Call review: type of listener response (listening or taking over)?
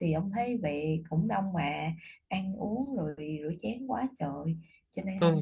taking over